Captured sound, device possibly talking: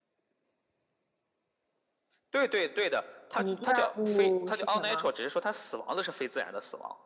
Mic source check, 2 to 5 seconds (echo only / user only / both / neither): both